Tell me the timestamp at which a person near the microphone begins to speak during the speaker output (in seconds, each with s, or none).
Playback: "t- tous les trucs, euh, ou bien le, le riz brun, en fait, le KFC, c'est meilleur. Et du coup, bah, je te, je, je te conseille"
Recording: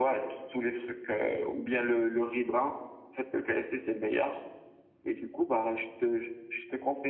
none